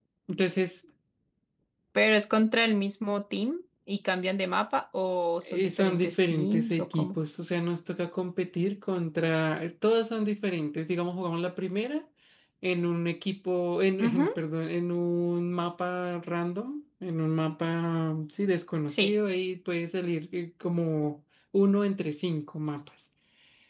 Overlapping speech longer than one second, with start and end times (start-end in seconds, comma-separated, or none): 5.5-7.2